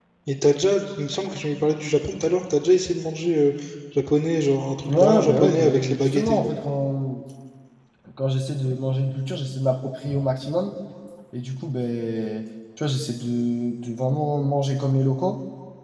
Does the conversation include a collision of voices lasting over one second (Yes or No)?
Yes